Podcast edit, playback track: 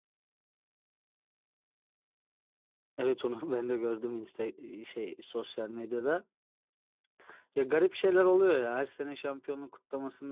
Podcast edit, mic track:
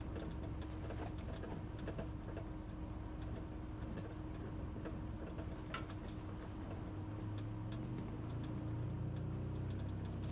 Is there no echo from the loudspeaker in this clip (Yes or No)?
Yes